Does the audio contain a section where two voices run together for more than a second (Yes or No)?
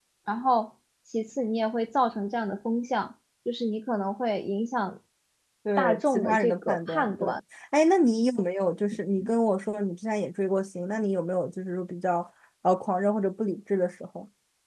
Yes